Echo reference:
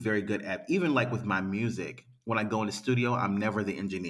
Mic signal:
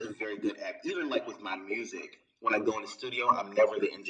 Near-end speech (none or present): none